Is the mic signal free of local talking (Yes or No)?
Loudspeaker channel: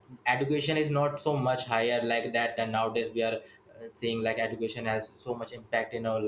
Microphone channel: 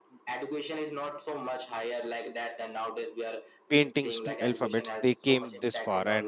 No